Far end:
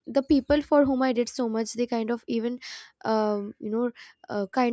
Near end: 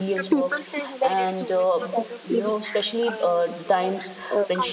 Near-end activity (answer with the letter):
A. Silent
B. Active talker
B